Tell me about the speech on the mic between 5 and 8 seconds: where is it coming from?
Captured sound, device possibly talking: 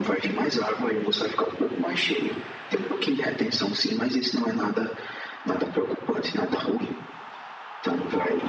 echo only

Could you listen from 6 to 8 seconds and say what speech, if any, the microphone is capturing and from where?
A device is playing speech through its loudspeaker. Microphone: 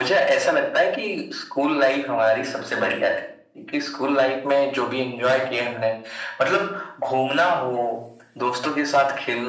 echo only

